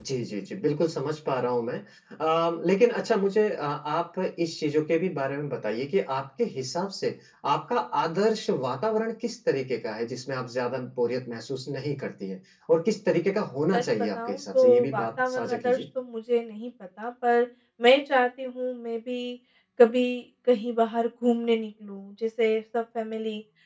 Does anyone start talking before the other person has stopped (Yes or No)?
Yes